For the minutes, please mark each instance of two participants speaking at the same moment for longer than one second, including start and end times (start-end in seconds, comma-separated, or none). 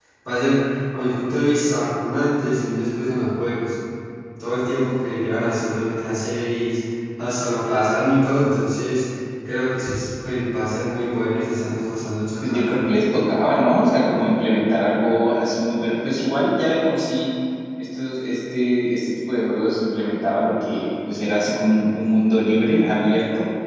none